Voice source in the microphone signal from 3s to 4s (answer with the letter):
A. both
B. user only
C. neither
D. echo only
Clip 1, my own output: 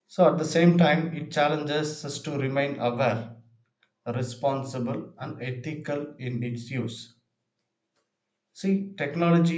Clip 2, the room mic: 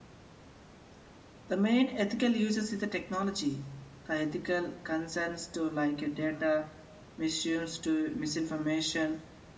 B